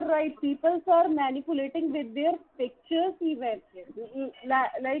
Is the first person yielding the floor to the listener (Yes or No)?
No